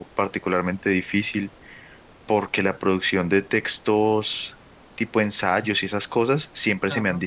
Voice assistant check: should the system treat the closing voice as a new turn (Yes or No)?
No